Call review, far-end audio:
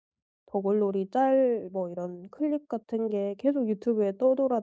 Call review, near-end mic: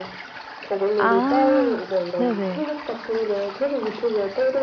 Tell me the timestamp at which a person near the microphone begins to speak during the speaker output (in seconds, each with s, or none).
1.0 s